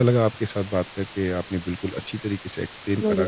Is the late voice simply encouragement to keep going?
Yes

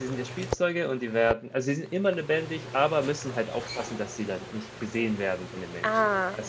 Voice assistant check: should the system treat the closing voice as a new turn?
Yes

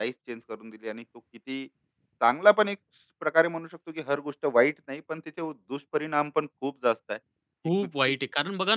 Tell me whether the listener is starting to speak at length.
Yes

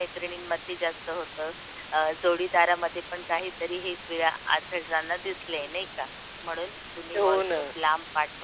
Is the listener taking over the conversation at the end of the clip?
No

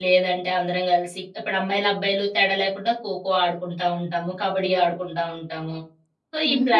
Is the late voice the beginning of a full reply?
Yes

